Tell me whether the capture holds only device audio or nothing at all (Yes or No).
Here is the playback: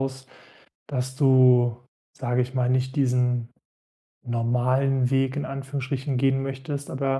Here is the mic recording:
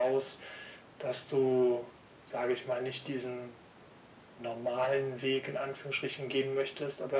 Yes